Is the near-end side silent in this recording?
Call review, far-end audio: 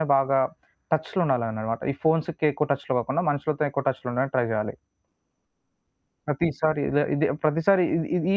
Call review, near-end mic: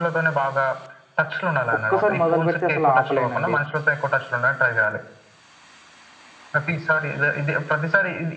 No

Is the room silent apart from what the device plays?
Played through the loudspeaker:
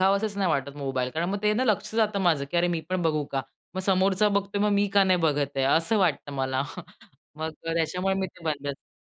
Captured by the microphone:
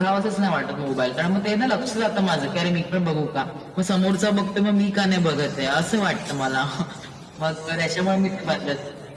Yes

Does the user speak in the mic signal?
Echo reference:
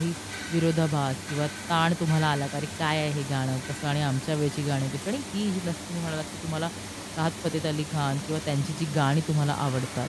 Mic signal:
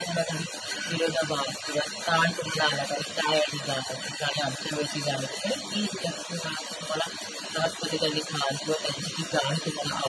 No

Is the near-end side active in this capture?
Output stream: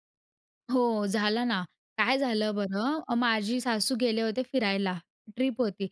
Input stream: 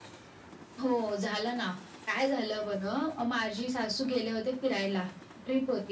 No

